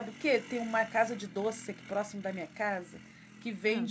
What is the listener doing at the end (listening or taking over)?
listening